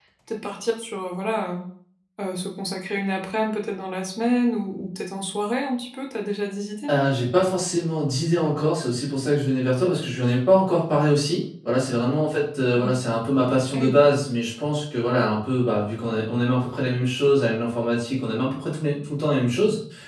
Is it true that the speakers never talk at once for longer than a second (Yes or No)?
Yes